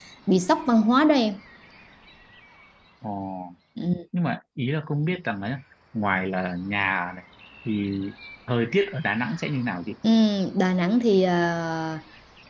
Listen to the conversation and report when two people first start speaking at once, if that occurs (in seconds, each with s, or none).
none